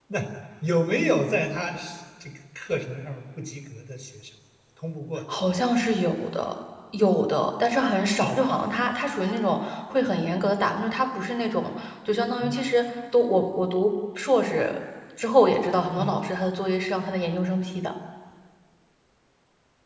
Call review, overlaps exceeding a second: none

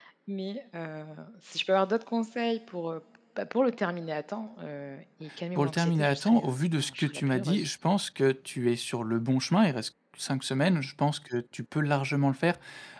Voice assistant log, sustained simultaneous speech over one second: present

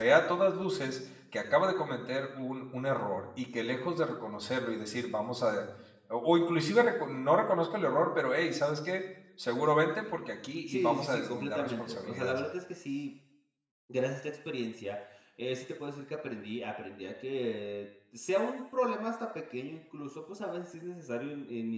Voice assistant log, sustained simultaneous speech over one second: present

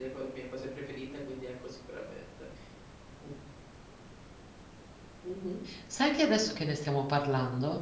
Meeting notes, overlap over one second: none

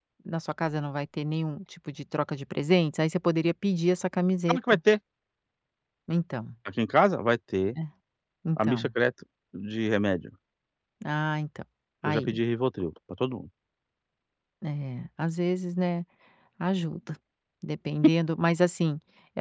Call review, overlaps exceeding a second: none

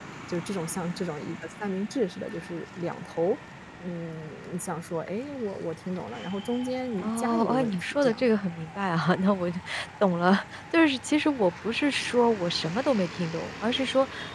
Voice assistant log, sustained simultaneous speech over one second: present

